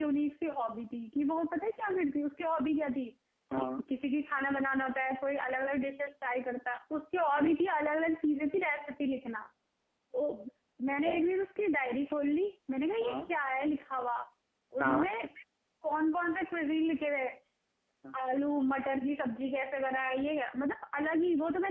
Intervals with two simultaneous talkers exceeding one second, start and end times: none

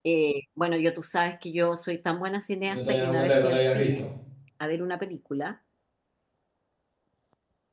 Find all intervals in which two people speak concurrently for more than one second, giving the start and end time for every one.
2.6-4.0

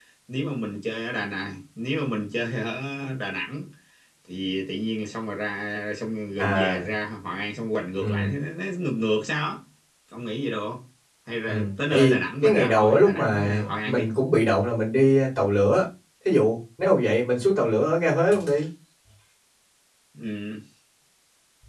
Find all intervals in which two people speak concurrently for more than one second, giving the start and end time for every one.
11.5-14.0

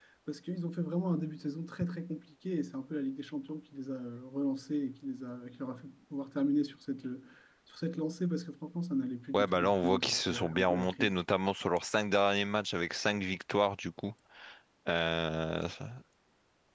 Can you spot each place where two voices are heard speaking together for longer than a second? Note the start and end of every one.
9.3-11.2

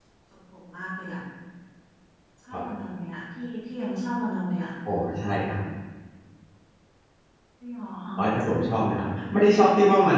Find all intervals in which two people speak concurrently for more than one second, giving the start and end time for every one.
none

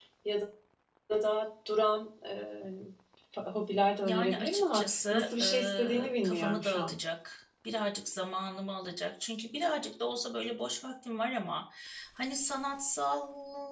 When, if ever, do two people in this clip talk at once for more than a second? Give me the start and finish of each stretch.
4.0-6.9

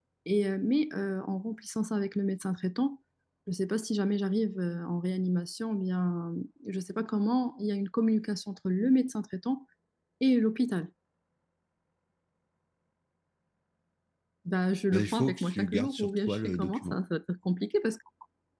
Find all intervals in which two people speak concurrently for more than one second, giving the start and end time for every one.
14.9-17.0

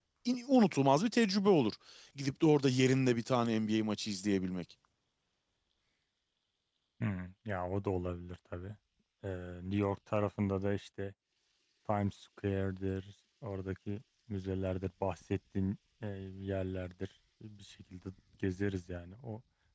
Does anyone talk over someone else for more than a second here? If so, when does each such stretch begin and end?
none

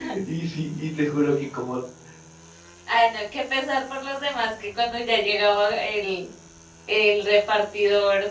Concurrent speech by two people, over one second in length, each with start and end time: none

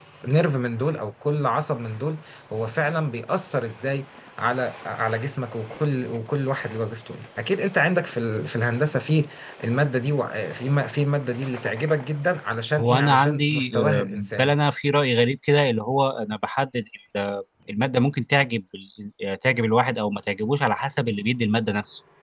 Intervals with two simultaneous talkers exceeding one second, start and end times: 12.8-14.6

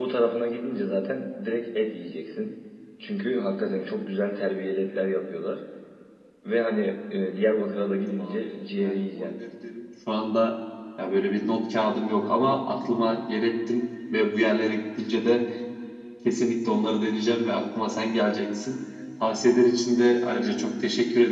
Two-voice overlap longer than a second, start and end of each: 7.9-9.3

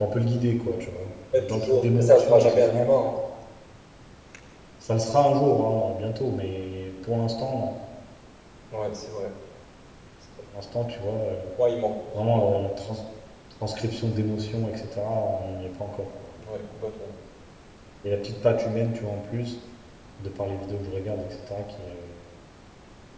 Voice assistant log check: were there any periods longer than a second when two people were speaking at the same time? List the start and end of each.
1.3-2.8

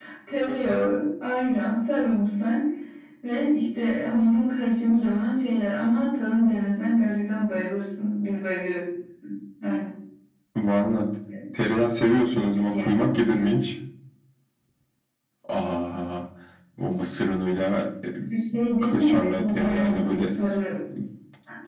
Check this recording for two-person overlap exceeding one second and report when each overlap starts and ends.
12.3-13.6, 18.8-20.2

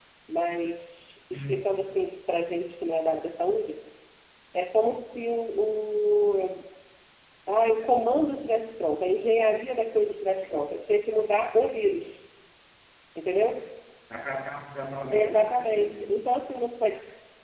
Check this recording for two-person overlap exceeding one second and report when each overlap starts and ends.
15.1-16.3

